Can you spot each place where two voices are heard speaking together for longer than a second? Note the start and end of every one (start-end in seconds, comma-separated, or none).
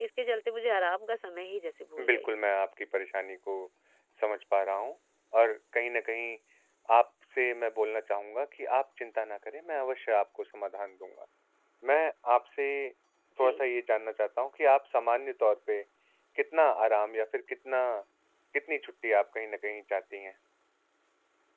none